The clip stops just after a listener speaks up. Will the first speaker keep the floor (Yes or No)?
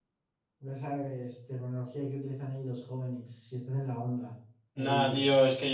No